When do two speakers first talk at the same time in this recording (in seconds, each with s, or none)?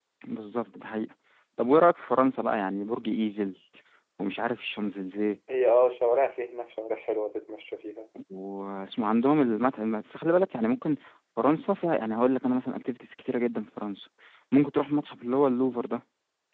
none